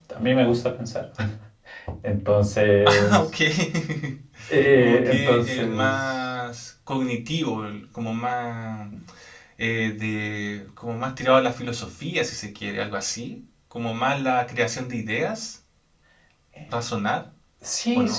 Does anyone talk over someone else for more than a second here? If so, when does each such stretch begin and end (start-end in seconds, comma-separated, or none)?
4.8-6.2